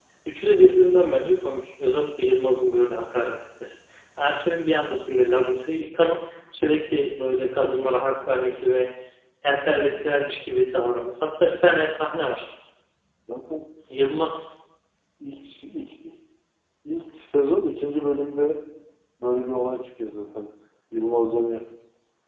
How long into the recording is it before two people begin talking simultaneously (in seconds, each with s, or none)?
none